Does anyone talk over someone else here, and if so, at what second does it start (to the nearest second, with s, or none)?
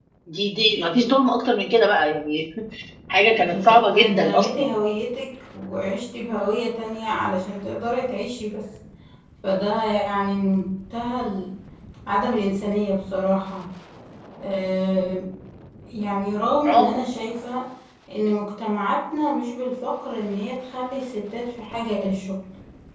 4 s